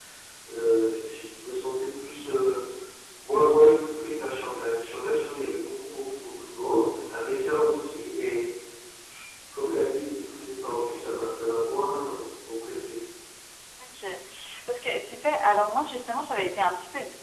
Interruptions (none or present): none